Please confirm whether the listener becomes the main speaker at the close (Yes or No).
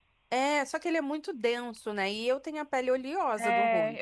Yes